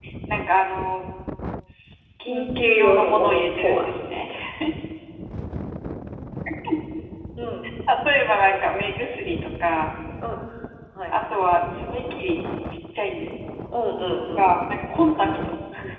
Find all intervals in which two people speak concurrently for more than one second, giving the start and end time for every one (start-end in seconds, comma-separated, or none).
2.2-3.8